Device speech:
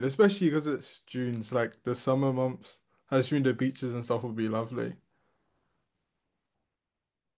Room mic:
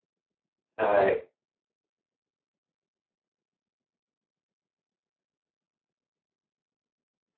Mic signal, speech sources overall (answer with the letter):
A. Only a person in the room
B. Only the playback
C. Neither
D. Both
A